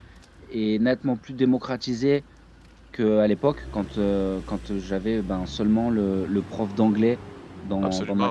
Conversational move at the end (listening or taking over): listening